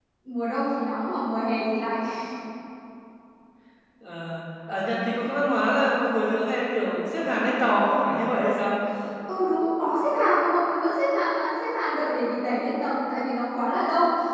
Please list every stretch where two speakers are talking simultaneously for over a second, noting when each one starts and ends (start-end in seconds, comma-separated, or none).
none